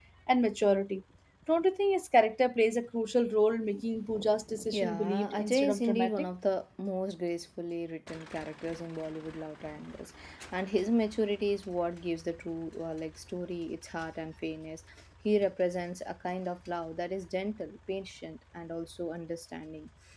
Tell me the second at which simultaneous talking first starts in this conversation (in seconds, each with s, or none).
4.7 s